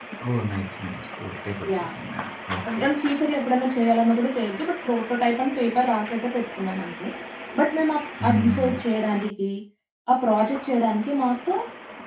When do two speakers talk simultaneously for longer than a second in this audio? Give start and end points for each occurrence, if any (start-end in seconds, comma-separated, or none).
none